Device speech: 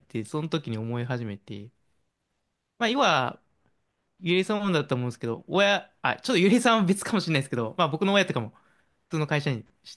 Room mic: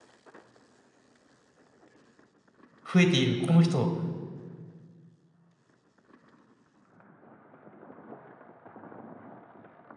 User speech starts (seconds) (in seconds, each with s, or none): 2.9 s